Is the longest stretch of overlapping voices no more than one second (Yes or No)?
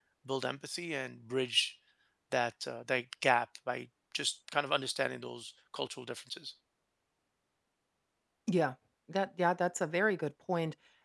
Yes